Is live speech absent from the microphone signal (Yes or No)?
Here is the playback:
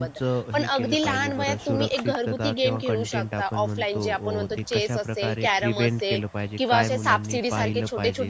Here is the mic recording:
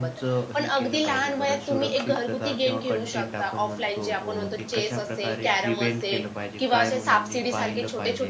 Yes